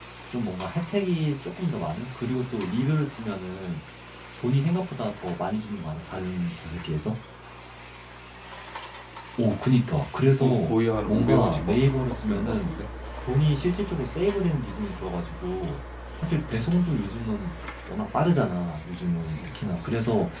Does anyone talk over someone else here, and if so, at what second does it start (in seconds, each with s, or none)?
10.3 s